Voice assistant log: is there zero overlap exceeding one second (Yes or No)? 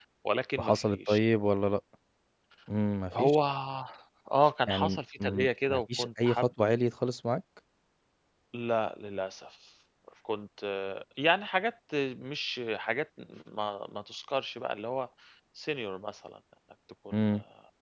No